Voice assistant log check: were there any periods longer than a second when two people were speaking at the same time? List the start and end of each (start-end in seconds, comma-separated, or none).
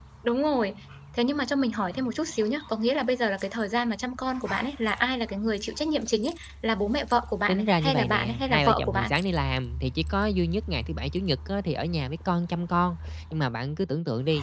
7.5-9.1